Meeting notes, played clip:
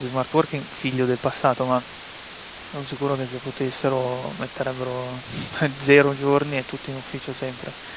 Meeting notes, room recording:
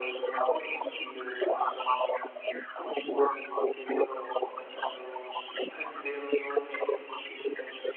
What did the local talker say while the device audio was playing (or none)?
none